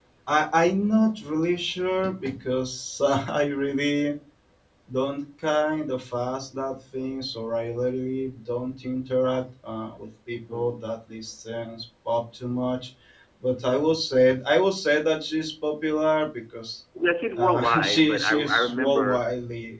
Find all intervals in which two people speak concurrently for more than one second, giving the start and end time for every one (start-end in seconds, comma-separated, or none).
17.4-19.3